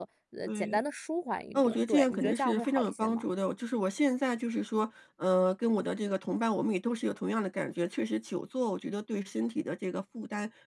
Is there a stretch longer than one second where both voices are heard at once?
Yes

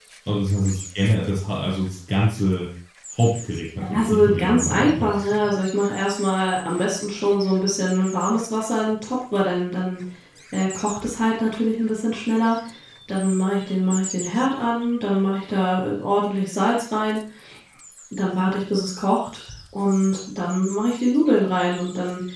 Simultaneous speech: Yes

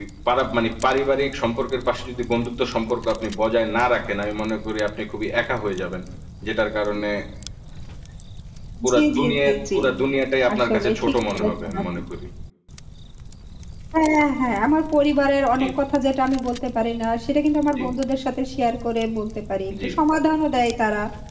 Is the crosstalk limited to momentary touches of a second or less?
No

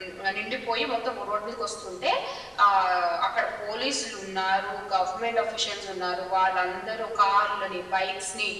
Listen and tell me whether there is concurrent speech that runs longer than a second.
No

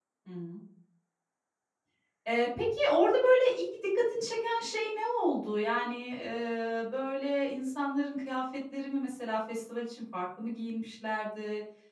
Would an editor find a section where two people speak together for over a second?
No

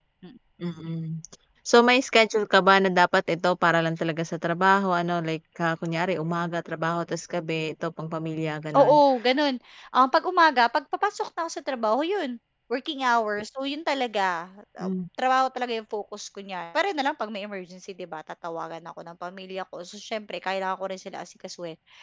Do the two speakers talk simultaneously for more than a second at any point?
No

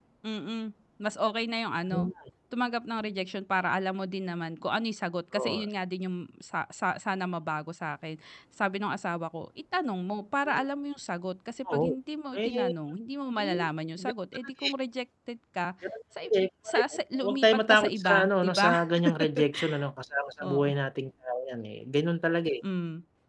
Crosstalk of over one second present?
Yes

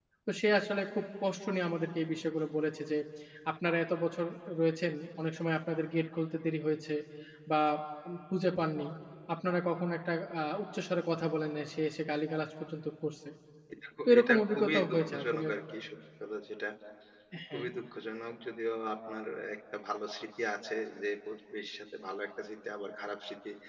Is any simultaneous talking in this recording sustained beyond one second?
Yes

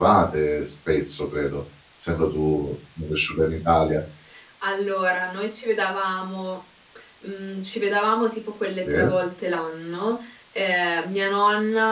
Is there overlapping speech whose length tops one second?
No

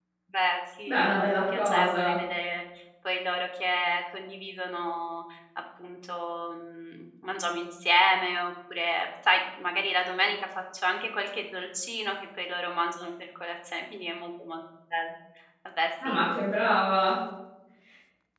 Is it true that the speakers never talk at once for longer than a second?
No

